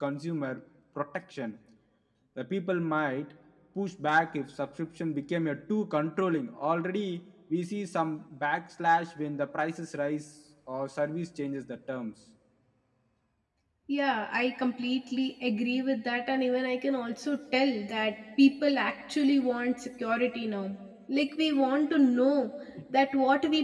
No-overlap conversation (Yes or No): Yes